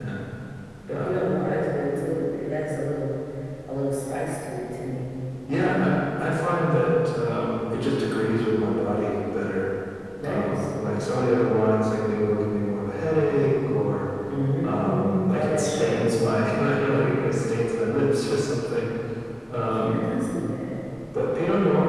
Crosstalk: present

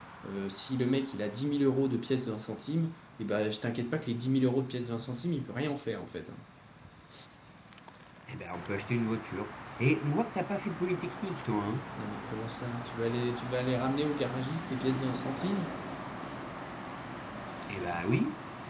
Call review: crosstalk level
none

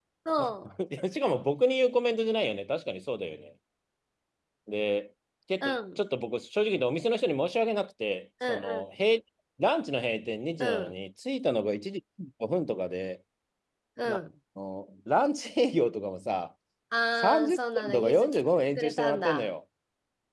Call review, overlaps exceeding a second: present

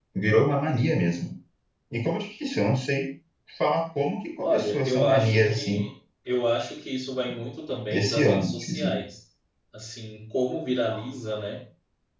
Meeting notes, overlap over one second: present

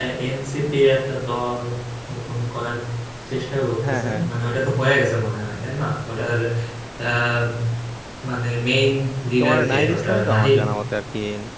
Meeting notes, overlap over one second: present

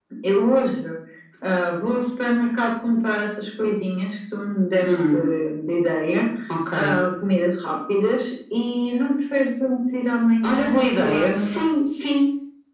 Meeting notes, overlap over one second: present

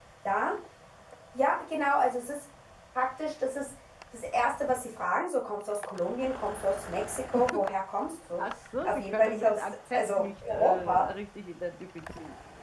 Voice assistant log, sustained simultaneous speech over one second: present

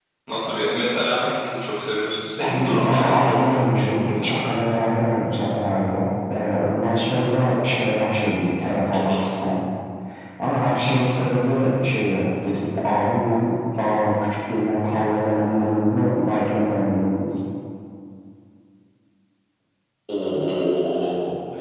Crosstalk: present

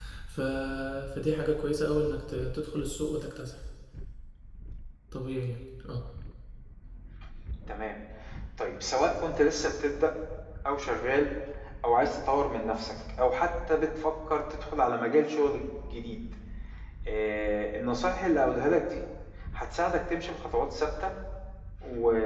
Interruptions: none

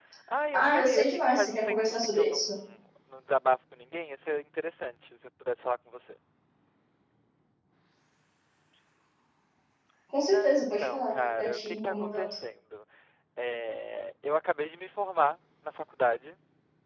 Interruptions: present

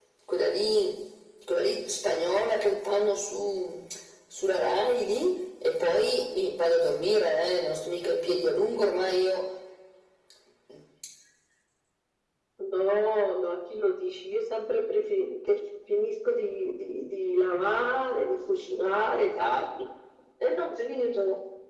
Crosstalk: none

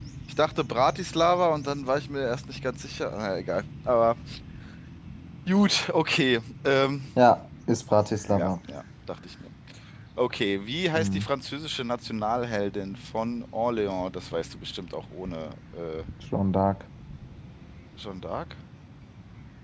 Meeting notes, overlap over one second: none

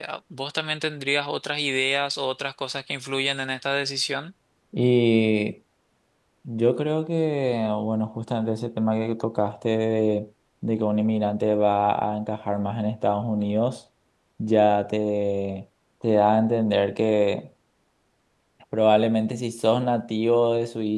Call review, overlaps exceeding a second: none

